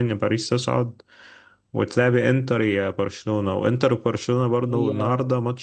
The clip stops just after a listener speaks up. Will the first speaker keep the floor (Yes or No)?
Yes